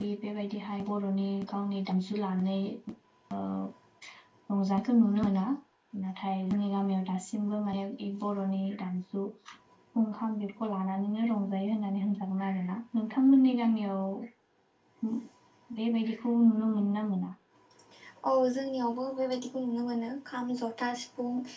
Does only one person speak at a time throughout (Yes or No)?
Yes